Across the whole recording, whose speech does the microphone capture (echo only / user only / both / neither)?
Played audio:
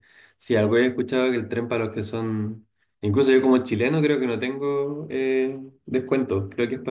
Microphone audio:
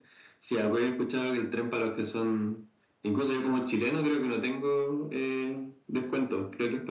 echo only